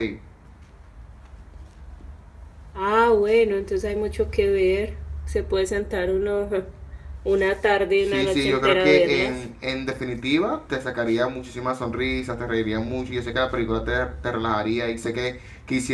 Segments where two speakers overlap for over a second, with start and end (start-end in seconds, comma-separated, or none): 8.1-9.3